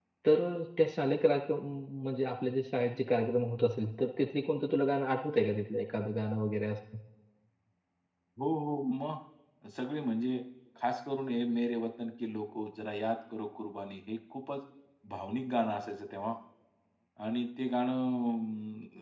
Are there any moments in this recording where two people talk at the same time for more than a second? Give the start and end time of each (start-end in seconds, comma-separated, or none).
none